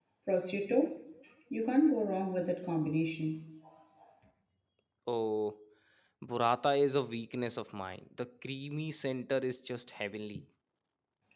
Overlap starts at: none

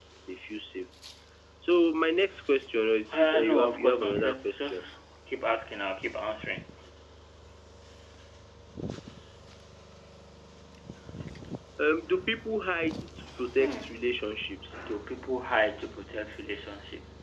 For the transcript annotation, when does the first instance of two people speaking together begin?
3.1 s

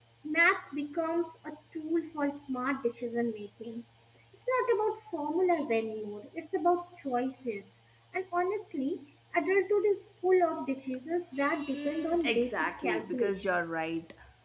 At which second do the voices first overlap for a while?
11.4 s

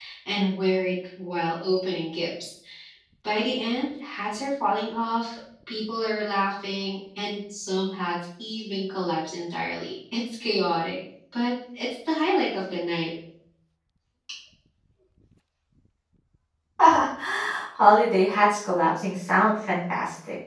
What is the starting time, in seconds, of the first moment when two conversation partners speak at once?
none

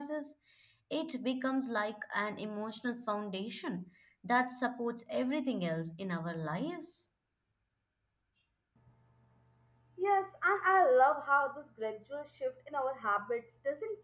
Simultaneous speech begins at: none

